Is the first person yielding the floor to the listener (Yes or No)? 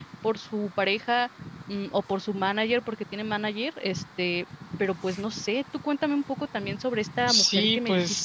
Yes